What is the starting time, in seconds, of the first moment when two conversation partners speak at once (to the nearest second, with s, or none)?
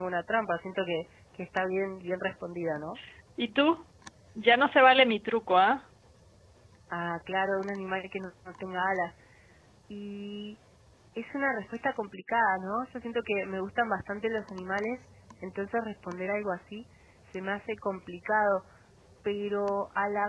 none